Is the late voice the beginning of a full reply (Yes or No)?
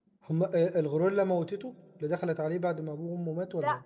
Yes